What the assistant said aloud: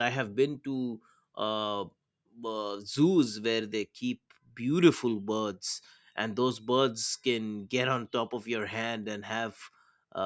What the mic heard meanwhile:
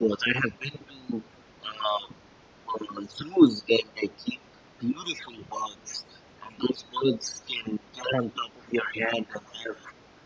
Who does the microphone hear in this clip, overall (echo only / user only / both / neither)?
echo only